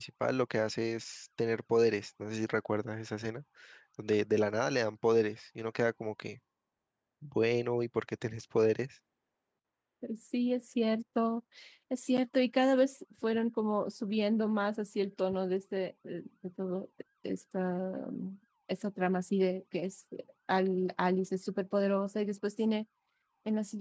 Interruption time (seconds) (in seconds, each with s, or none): none